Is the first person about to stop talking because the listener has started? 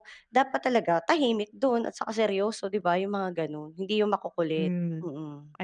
Yes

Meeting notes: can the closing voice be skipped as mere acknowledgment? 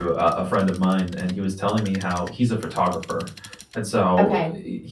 Yes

